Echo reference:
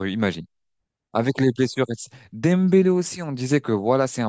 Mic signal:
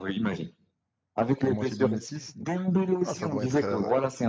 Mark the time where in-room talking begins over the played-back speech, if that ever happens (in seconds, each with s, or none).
1.4 s